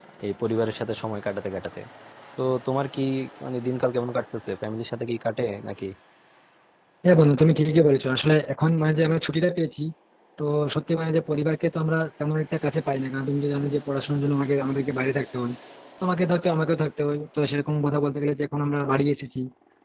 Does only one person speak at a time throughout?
Yes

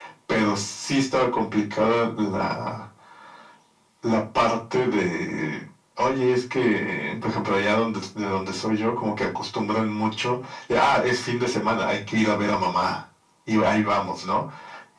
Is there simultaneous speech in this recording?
No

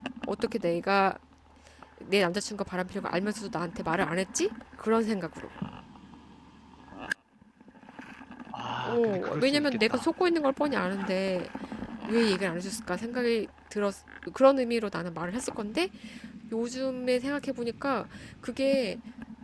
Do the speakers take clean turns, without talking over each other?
No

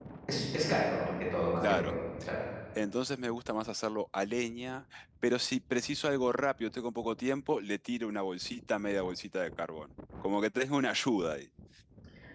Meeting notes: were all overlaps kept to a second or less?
Yes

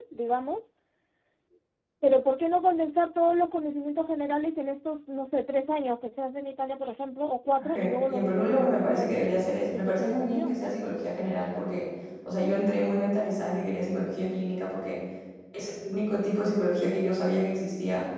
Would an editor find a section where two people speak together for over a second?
Yes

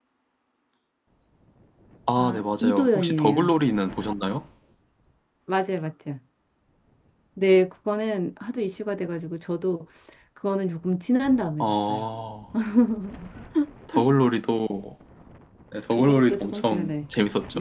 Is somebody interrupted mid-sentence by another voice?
Yes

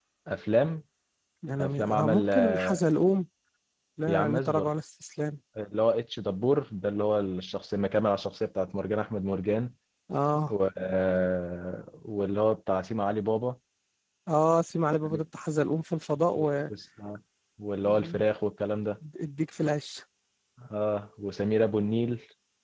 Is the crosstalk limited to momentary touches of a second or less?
No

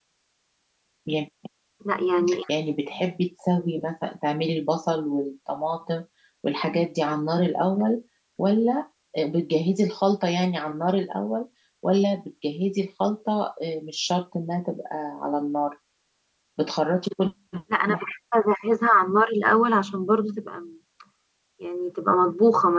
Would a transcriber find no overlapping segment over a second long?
Yes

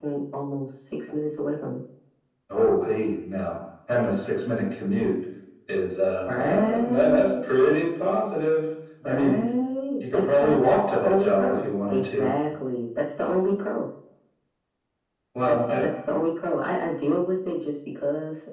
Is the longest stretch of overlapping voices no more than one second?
No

